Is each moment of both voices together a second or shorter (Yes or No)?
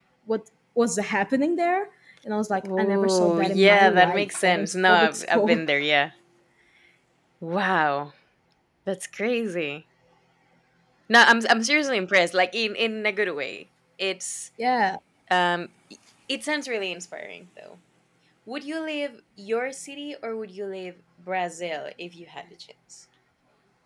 No